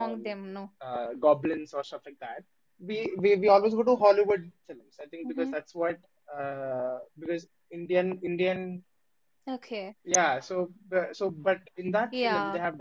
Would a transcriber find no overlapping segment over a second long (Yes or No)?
Yes